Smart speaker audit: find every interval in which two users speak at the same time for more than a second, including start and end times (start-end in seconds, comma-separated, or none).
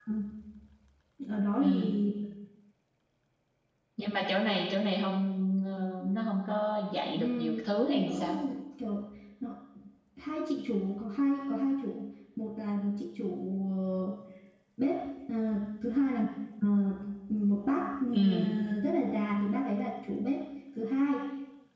7.1-8.4